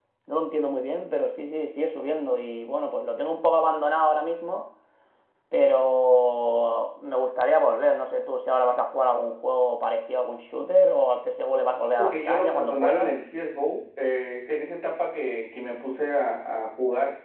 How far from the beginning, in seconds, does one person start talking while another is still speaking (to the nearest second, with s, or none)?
12 s